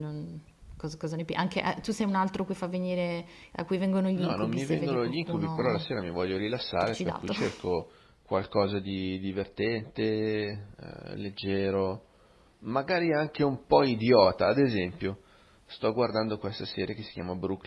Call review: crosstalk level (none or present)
present